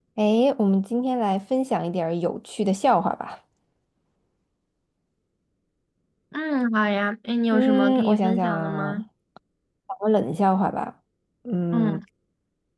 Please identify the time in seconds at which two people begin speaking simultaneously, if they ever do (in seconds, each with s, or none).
7.5 s